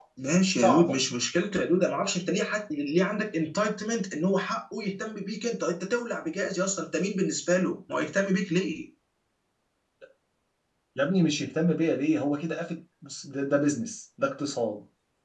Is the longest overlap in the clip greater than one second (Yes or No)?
No